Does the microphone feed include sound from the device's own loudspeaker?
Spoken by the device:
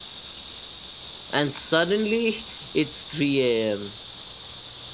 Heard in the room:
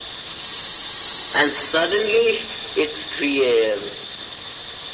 Yes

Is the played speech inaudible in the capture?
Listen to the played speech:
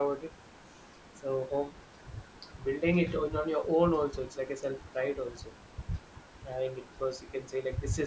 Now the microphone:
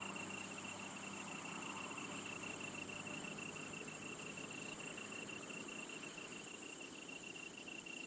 Yes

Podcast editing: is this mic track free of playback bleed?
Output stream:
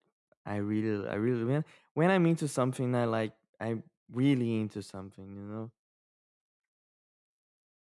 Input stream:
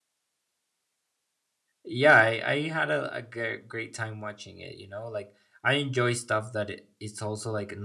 Yes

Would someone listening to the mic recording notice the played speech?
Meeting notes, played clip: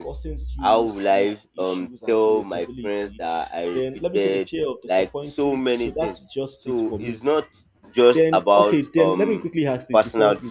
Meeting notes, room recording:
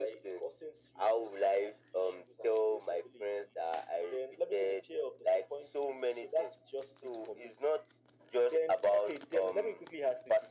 Yes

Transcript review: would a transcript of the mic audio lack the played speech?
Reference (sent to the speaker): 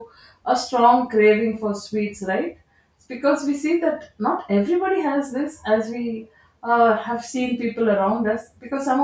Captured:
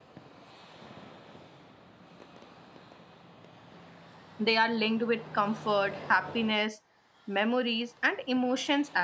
Yes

